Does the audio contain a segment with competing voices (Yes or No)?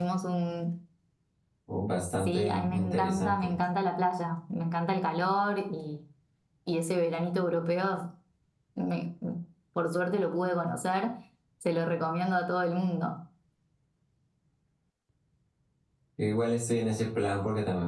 Yes